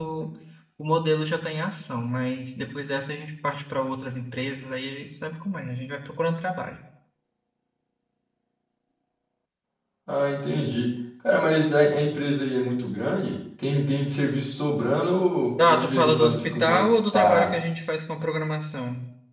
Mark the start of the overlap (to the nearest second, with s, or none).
16 s